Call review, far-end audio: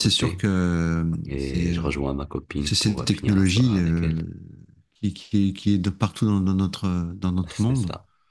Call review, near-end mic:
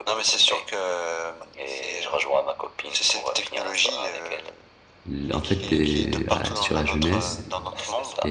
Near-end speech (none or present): present